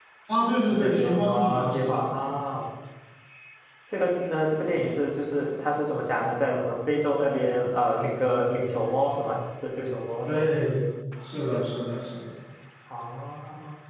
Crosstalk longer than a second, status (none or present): present